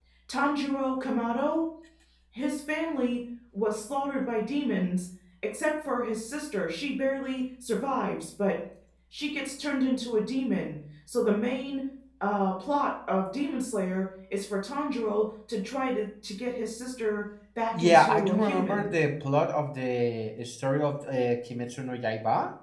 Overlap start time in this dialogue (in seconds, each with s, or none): 17.7 s